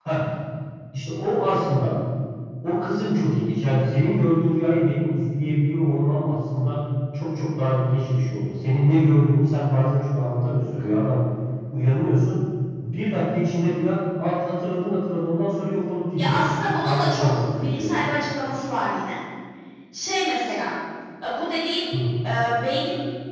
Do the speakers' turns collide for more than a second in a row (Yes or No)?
Yes